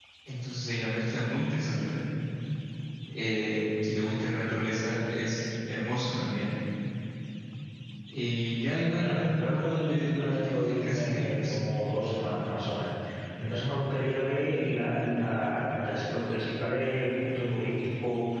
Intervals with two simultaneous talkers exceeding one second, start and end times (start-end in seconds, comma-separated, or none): 9.0-11.5